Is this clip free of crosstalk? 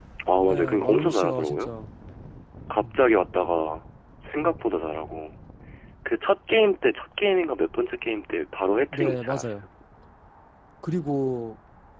No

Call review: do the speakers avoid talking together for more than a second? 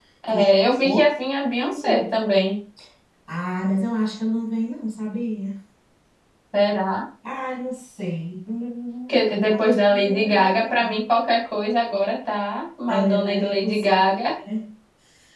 No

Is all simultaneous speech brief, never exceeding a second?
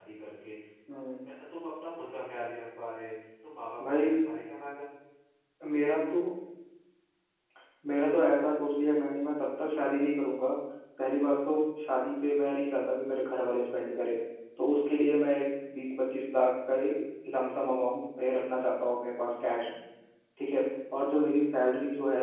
Yes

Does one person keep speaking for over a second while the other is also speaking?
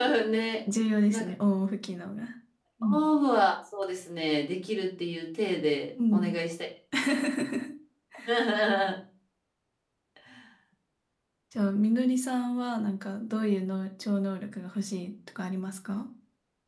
No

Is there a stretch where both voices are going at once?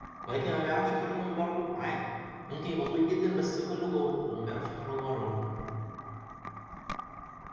No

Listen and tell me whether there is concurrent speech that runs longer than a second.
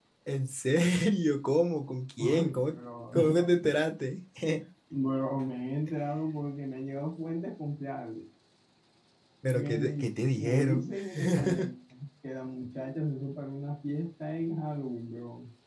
Yes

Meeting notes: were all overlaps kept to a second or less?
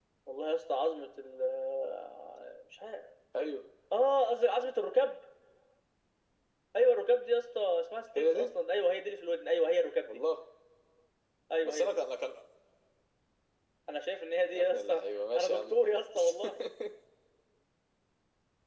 No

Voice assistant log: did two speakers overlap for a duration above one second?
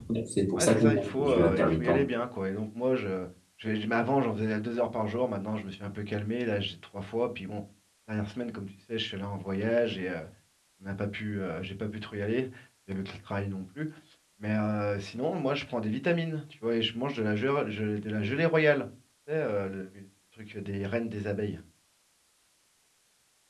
Yes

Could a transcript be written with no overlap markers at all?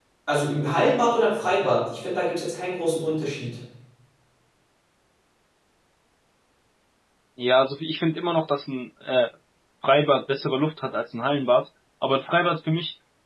Yes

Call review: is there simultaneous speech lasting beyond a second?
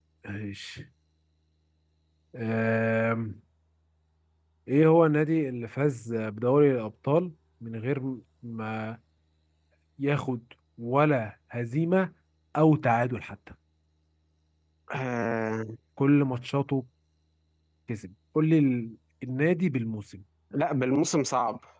No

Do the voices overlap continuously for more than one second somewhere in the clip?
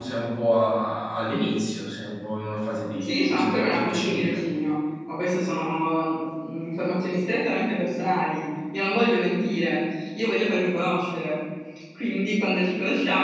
Yes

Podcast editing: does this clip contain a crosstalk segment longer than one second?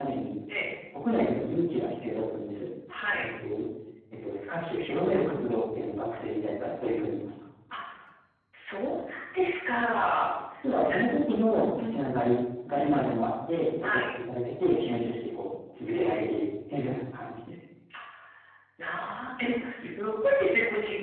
No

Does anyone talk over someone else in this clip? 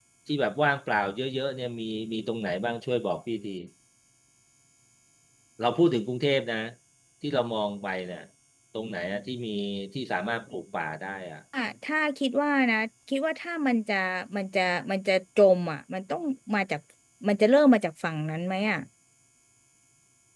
No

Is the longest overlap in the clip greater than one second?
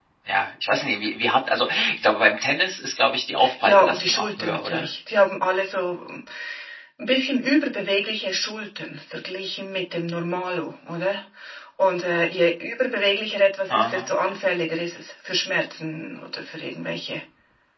Yes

